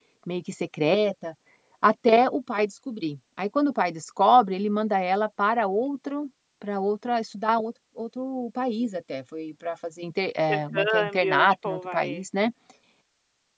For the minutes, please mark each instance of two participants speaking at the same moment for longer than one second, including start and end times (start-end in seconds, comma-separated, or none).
10.5-12.1